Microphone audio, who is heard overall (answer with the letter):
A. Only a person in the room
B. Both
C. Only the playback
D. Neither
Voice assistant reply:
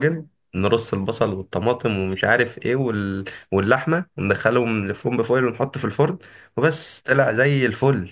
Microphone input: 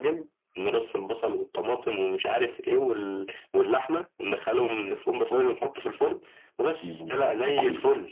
B